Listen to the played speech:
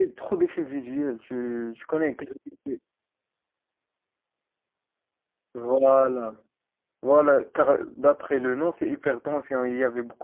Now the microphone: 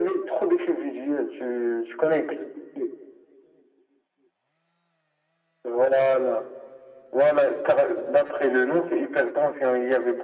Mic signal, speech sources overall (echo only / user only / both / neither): echo only